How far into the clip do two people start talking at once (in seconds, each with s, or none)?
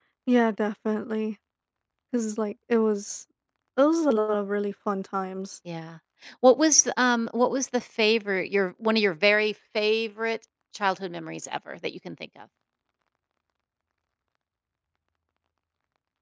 none